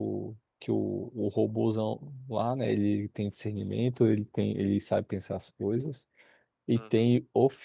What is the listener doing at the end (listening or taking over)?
listening